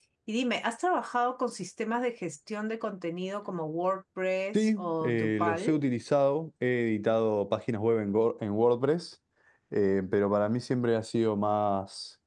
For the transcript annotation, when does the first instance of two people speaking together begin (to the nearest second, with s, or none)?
5 s